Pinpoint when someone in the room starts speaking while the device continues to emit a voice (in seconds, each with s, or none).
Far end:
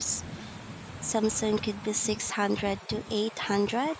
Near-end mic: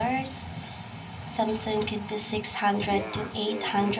2.9 s